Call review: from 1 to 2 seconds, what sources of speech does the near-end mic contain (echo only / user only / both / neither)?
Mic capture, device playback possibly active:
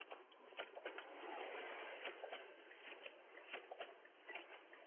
neither